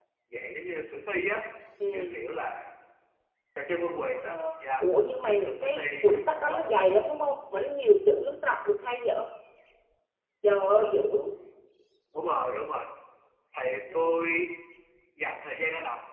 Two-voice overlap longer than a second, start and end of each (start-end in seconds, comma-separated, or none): 5.2-6.9